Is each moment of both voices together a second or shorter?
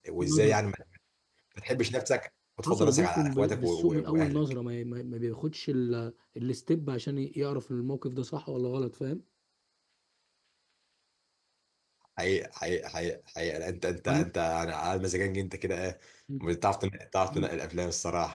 No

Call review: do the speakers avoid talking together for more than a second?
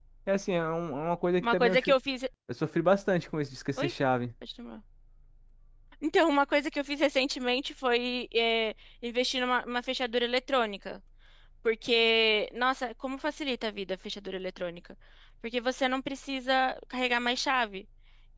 Yes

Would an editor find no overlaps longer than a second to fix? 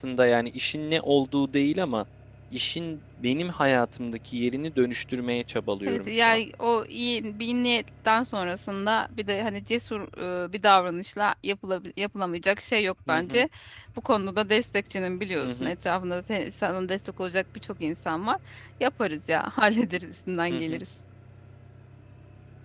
Yes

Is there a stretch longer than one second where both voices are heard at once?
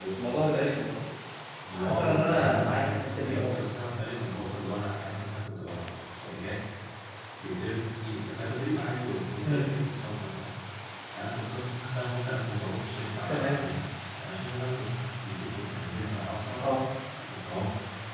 Yes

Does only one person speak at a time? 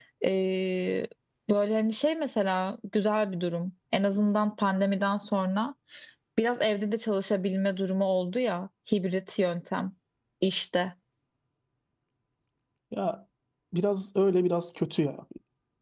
Yes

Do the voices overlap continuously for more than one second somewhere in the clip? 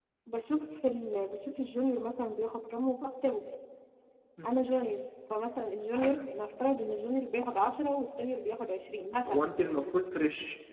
No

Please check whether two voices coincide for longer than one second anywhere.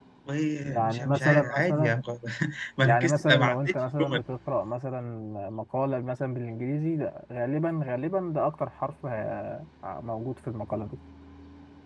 Yes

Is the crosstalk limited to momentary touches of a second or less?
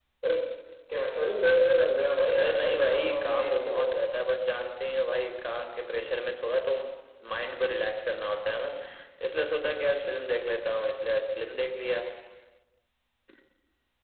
No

